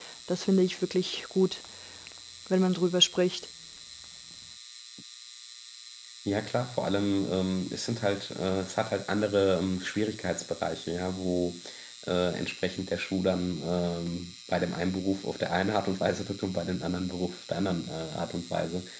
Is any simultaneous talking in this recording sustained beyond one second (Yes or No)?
No